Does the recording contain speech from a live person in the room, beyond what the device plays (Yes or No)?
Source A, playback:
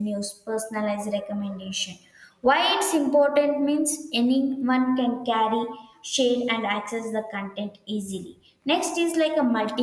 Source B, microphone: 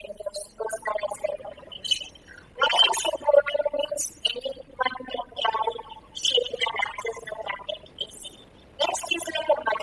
No